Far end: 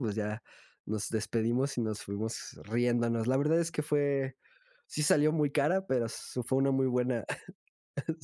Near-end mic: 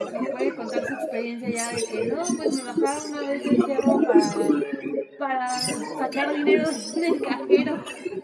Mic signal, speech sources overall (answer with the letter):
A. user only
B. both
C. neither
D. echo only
B